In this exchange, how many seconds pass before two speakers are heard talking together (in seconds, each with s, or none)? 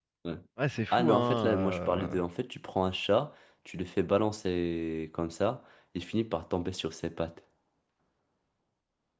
0.9 s